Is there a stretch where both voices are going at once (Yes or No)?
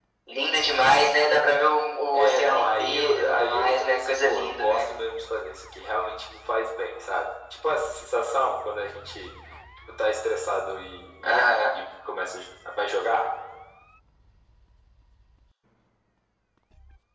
Yes